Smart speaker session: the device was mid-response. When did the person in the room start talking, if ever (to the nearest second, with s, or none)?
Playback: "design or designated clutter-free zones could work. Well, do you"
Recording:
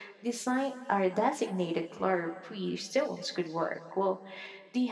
none